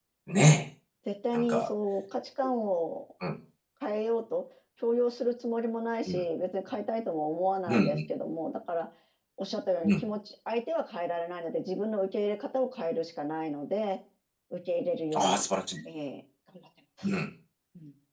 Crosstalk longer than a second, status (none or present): none